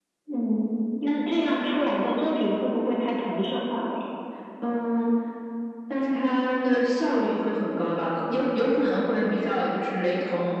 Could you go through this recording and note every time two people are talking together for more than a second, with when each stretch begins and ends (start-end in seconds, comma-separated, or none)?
none